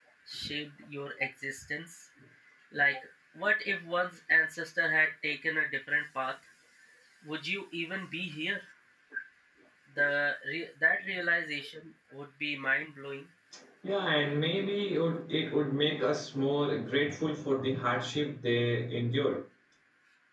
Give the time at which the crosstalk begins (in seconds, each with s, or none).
none